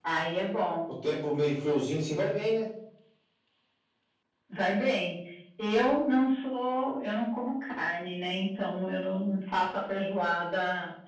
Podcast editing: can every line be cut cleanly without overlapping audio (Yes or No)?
Yes